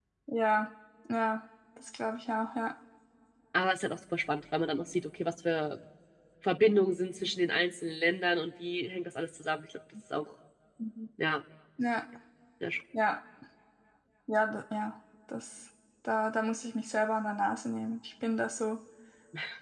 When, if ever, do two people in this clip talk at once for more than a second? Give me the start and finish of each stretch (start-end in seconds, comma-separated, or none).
none